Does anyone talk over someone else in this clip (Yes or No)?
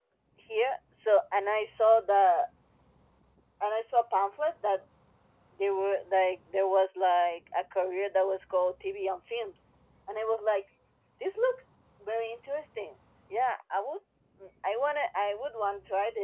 No